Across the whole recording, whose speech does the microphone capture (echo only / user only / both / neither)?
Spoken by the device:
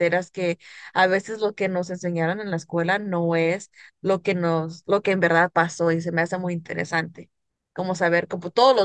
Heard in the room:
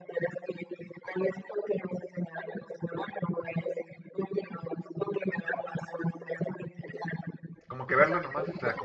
both